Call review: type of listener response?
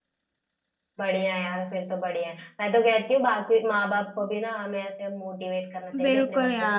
taking over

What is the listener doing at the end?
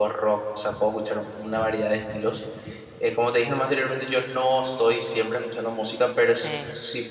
listening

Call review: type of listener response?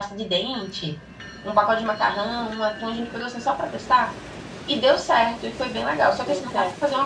listening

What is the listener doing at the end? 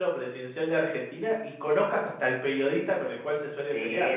taking over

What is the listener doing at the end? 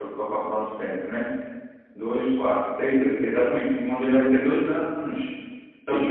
listening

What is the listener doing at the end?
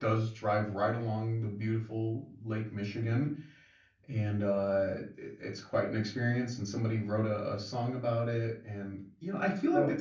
listening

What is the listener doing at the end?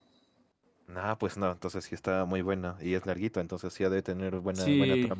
taking over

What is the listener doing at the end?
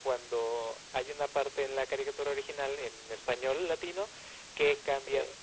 listening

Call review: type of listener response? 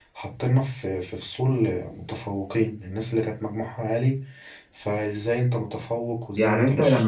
taking over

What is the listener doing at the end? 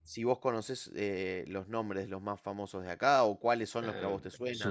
taking over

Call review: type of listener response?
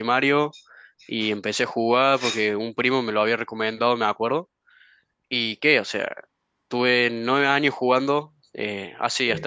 listening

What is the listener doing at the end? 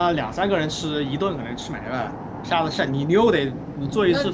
taking over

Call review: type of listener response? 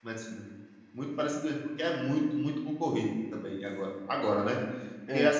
listening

